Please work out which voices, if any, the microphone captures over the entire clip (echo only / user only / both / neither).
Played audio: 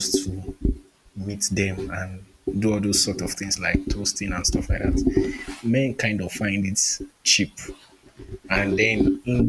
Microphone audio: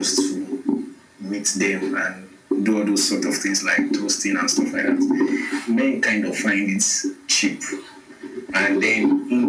echo only